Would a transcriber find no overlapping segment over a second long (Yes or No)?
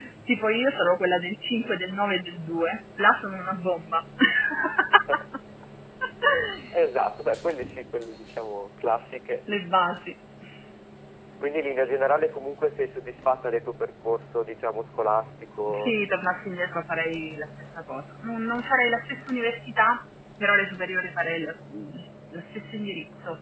Yes